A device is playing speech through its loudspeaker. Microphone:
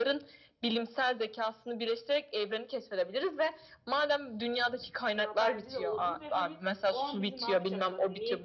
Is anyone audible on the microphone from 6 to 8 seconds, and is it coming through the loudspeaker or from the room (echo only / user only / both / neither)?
both